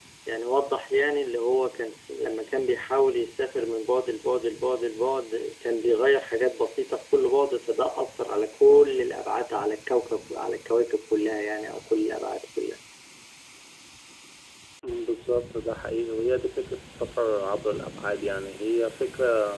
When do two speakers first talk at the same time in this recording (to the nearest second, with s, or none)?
none